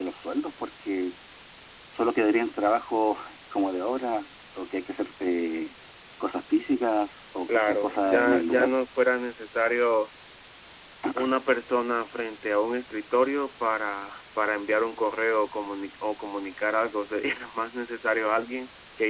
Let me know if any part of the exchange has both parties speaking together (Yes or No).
Yes